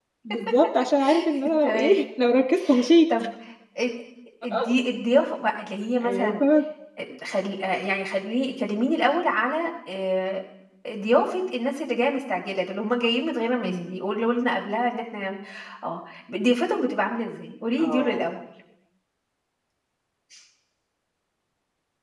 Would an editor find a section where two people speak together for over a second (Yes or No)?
No